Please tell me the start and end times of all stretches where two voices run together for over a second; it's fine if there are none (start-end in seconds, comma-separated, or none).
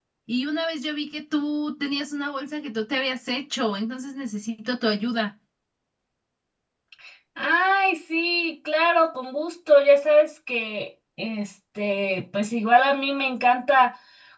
none